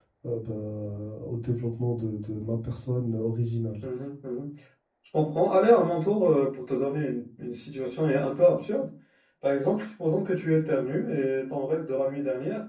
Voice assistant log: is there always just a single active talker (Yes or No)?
Yes